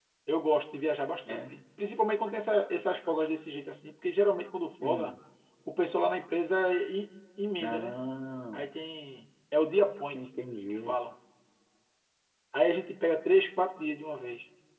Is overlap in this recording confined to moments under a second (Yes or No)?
Yes